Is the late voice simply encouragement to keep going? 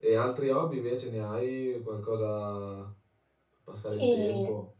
No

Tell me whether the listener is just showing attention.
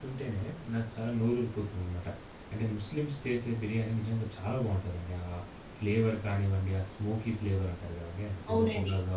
No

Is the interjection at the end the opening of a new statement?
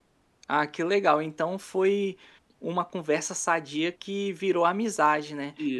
No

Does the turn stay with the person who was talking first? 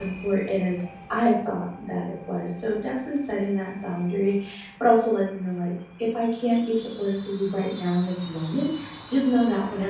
Yes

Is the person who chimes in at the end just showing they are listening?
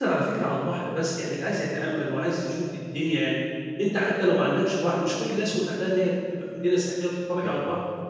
Yes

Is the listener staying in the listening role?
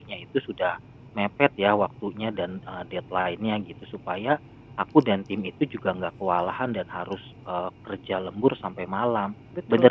Yes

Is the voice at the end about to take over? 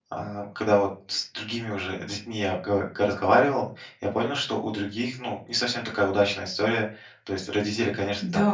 Yes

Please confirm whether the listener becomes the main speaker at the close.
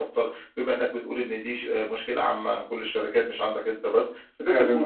No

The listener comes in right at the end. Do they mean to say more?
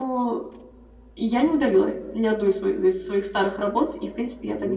No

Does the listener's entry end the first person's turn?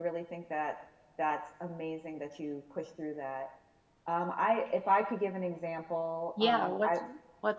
Yes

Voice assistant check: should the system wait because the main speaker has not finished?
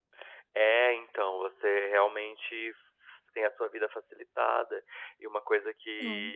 Yes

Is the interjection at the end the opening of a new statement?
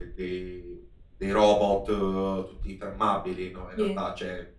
No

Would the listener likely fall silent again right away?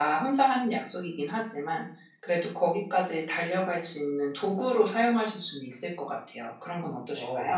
No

